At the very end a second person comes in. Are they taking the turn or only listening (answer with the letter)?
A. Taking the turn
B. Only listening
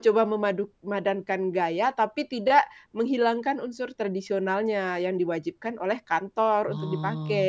A